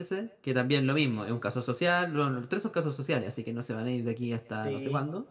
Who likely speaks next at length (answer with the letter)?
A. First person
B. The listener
B